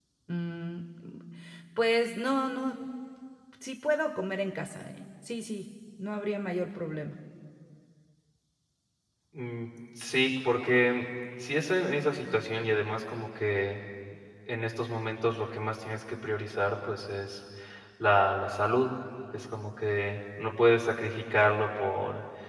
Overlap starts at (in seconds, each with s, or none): none